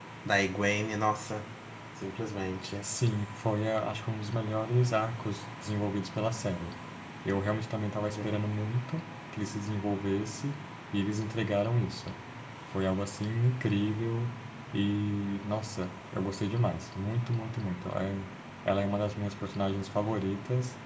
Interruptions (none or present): none